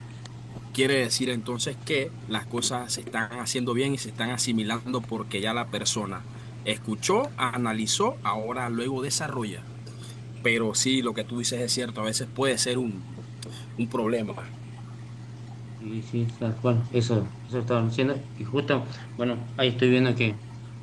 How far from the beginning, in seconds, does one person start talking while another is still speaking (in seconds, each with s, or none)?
none